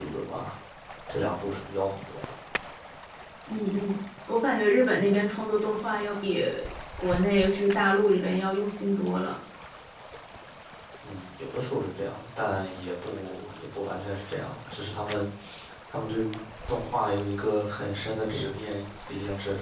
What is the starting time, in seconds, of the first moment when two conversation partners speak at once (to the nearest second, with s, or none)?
none